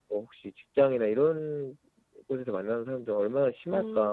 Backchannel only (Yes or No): No